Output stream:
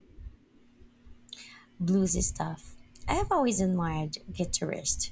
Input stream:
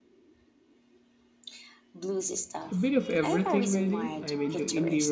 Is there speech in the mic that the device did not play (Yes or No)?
Yes